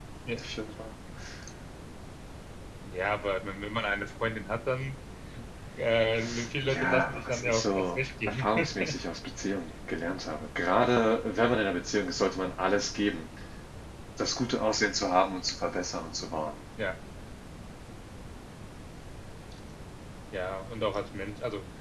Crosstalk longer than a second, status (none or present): present